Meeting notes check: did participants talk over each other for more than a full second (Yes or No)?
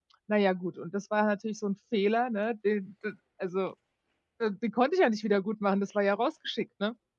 No